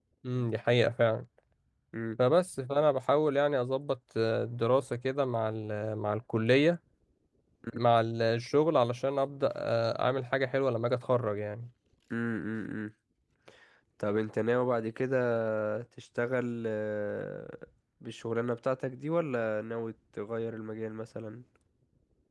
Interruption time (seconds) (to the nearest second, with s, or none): none